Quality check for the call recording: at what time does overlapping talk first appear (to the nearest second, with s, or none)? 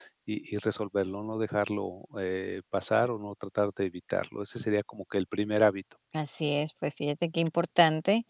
none